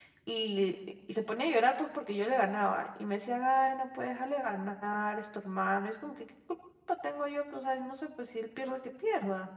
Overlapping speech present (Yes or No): No